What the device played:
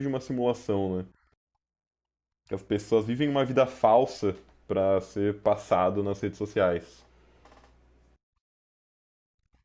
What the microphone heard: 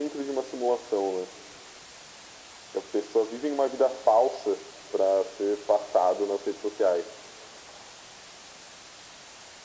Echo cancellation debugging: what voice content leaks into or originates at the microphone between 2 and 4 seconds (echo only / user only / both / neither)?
echo only